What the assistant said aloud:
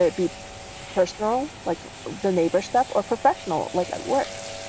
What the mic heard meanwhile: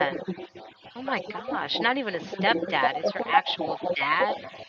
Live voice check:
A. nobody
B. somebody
B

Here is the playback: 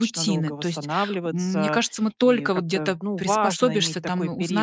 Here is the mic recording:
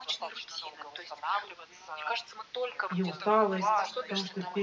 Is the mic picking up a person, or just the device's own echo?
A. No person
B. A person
B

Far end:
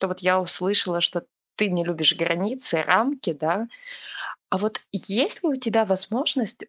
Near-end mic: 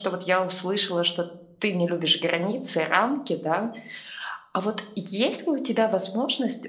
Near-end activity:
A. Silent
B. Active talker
A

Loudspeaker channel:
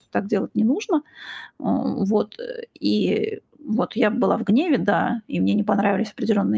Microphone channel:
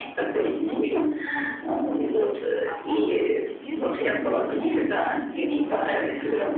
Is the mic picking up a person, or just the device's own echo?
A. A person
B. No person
A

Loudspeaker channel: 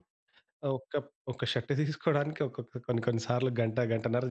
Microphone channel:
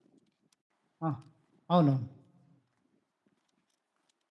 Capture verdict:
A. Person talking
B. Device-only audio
A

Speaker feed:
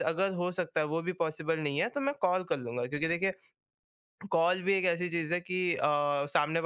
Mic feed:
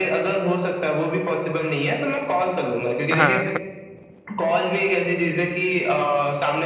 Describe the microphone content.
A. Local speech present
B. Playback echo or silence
A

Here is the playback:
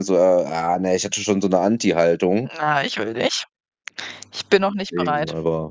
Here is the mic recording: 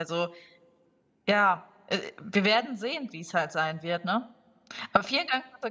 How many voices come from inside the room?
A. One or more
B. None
A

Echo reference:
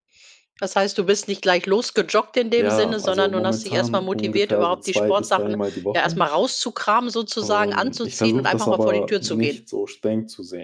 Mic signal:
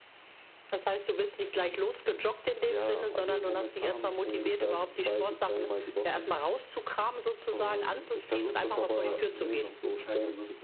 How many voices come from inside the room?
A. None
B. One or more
B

